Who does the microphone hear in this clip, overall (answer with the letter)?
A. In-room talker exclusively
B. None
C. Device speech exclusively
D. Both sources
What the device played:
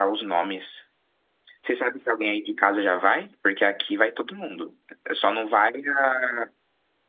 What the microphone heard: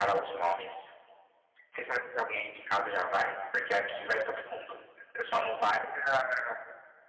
C